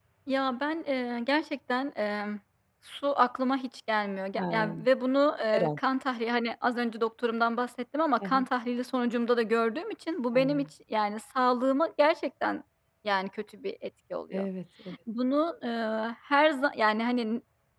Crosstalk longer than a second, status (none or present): none